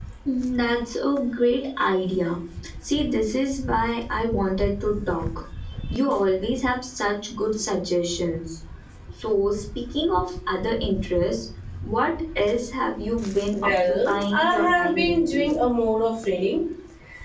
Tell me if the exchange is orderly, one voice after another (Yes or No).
No